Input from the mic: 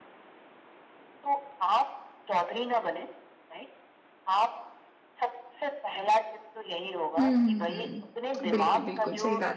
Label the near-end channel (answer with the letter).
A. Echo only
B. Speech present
B